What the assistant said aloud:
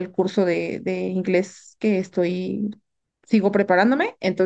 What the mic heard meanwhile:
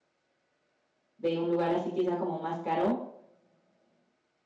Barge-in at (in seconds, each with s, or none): 1.2 s